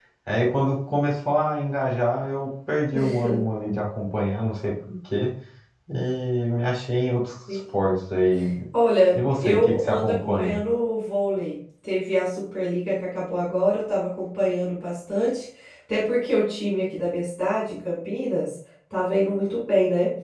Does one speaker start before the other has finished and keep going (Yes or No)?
Yes